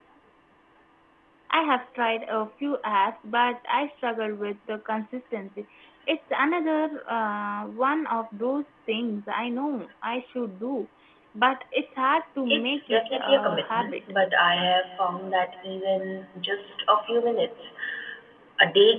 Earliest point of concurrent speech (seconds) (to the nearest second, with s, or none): 12 s